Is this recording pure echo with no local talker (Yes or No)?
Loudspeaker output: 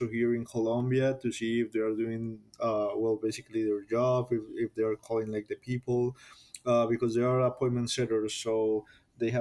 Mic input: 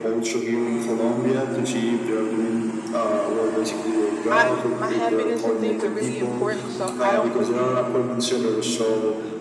No